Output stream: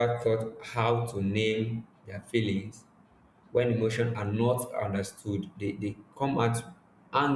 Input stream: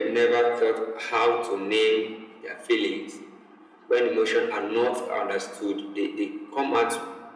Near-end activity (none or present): none